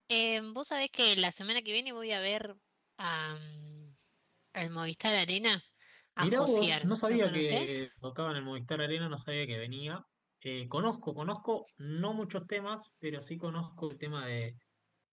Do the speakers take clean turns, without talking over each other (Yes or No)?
No